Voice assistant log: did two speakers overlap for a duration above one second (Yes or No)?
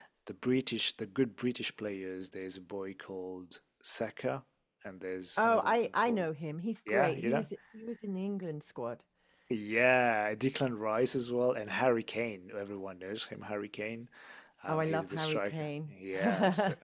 Yes